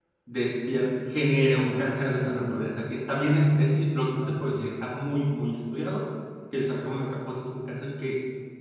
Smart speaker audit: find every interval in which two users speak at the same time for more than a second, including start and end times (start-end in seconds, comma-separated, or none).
1.3-2.7